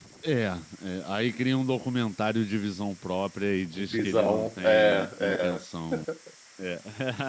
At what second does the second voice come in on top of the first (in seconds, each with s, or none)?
3.9 s